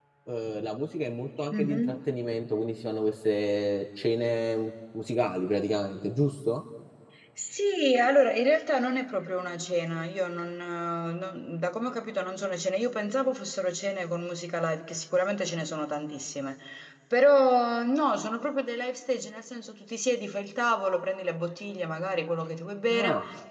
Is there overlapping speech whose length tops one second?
No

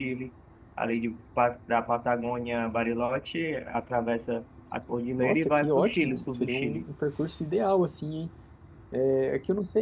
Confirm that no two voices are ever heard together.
No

